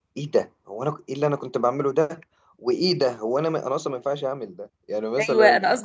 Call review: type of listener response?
taking over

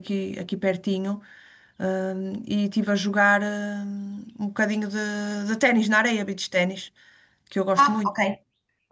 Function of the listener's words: taking over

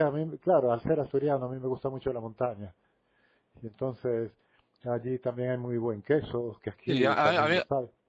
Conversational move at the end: taking over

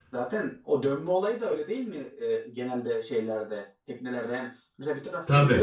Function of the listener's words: listening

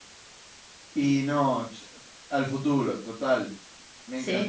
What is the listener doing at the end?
listening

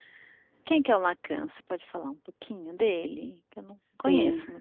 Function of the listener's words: taking over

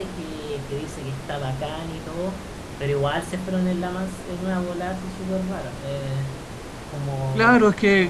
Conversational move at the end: taking over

